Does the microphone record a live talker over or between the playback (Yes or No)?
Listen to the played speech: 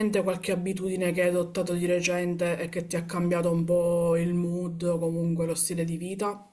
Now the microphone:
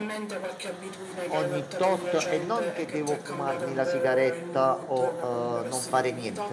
Yes